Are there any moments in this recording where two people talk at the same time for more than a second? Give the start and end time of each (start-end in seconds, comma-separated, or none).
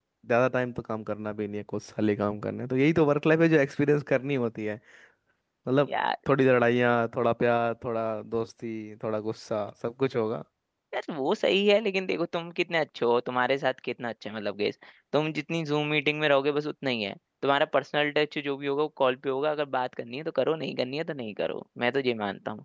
none